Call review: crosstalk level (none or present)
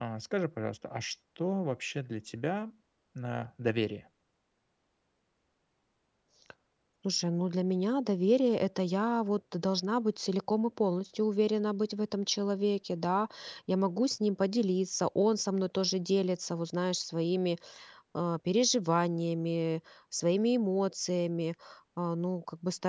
none